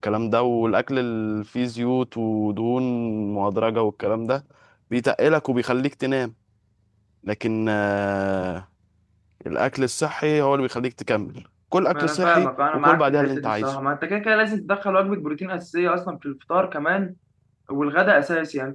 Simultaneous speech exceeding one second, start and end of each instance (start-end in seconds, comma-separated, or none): 11.9-13.7